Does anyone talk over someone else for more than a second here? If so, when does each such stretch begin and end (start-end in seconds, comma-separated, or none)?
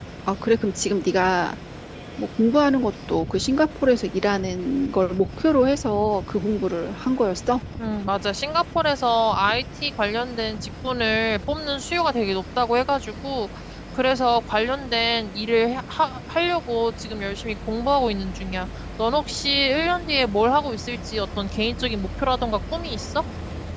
none